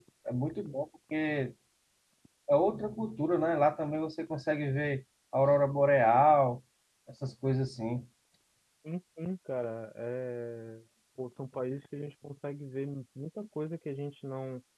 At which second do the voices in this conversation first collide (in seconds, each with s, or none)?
none